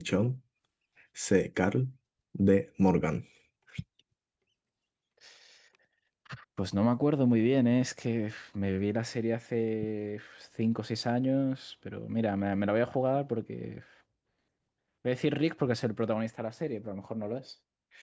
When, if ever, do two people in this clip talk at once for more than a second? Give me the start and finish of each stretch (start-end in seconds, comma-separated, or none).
none